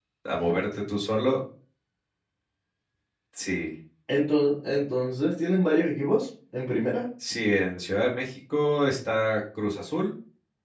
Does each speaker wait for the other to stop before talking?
Yes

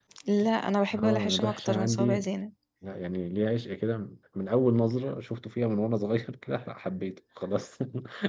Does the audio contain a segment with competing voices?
Yes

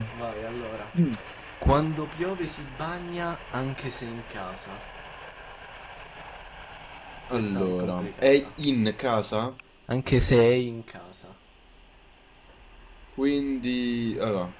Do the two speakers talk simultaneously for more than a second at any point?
Yes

